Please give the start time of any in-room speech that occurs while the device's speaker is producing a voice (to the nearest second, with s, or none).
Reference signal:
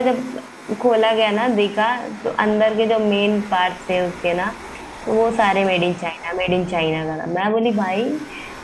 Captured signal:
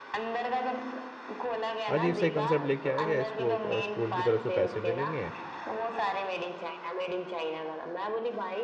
2 s